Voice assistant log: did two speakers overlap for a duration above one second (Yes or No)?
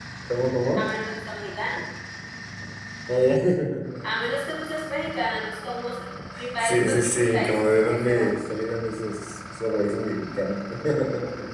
Yes